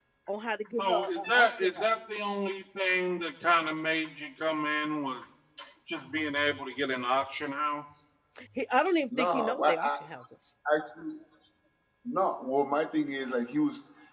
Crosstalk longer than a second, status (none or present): present